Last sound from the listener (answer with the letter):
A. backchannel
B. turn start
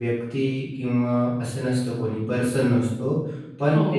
B